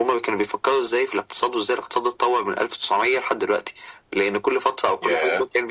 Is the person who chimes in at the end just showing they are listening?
Yes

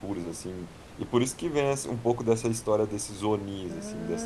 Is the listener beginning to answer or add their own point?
No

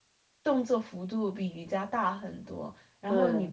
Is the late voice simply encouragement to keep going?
Yes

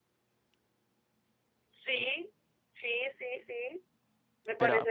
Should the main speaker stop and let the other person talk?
Yes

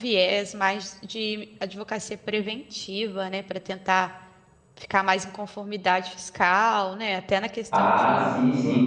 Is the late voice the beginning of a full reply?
Yes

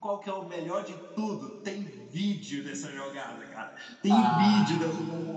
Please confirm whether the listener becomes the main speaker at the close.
No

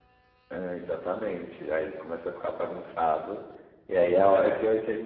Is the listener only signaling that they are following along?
Yes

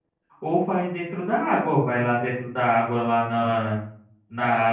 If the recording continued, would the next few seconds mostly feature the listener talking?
No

